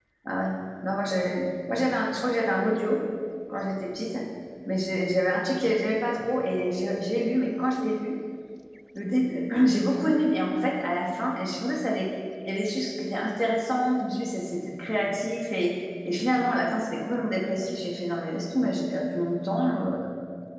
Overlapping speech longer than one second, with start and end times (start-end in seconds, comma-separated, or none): none